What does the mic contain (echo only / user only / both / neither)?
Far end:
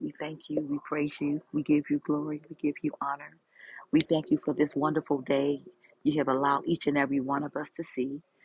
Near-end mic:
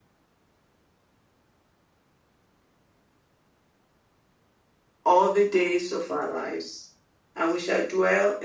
user only